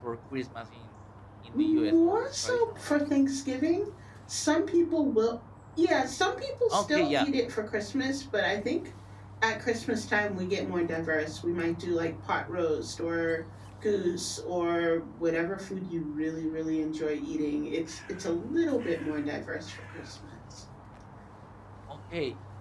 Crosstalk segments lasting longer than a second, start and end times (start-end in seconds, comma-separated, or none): 1.5-2.9